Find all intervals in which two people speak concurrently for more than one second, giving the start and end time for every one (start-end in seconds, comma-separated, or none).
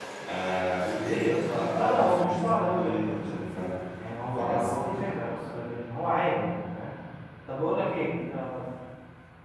1.0-3.4